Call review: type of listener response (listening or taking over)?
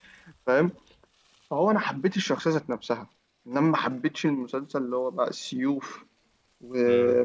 listening